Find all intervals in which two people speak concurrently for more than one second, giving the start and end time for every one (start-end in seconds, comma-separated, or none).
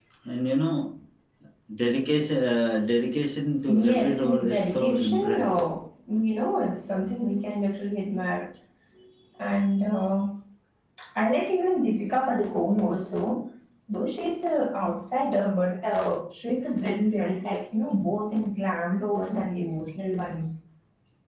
3.7-5.7